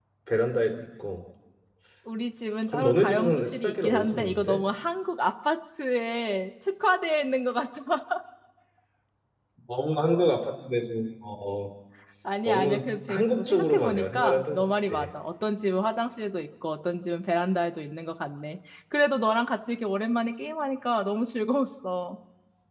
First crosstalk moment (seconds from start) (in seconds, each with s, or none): 2.7 s